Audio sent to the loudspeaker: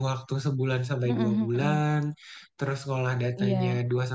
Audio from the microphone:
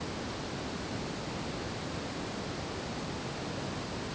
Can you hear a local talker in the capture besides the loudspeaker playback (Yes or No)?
No